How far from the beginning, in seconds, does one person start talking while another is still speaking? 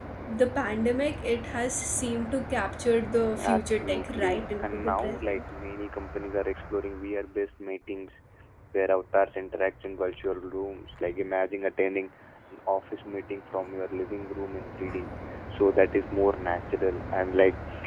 3.3 s

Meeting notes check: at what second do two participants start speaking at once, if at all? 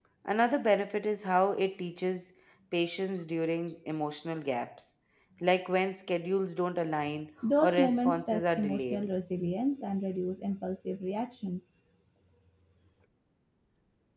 7.4 s

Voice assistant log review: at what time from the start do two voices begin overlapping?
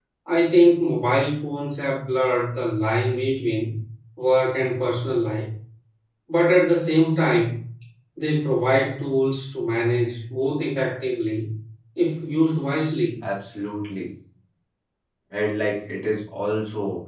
none

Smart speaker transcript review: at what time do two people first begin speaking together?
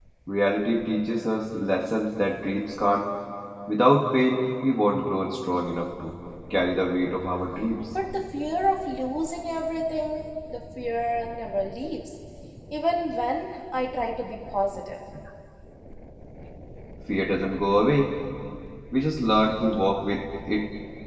none

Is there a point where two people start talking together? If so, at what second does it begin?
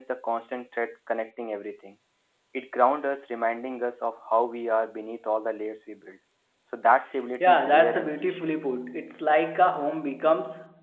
7.4 s

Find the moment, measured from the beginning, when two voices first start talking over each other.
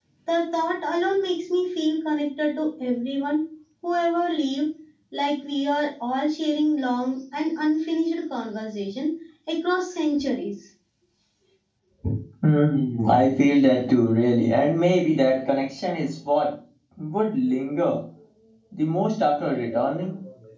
none

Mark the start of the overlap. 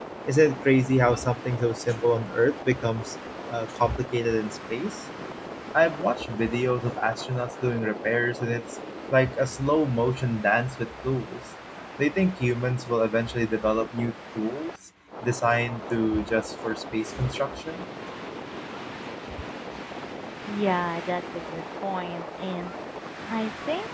none

